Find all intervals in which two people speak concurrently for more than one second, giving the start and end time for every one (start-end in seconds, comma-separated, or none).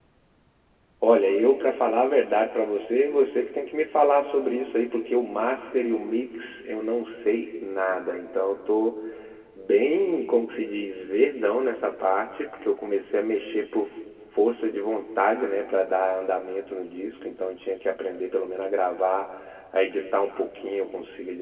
none